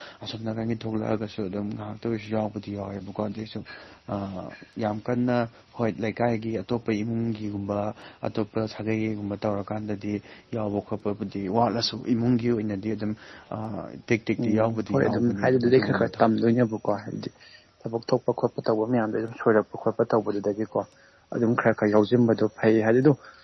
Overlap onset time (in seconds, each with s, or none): 14.4 s